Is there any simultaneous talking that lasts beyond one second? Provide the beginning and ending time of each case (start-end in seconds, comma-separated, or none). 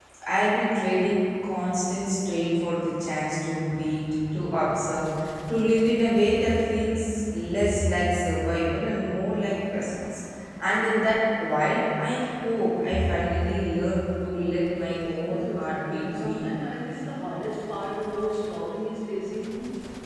15.2-16.8